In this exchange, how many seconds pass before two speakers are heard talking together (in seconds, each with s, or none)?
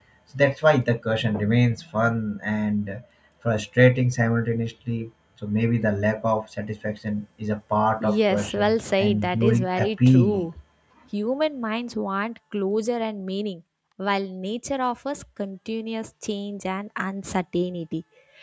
8.0 s